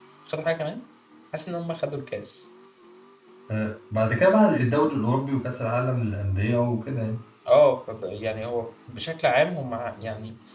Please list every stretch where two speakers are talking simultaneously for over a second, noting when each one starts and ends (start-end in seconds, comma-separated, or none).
none